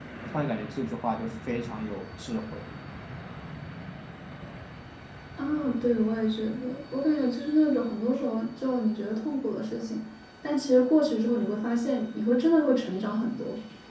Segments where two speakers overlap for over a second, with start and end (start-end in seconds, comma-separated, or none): none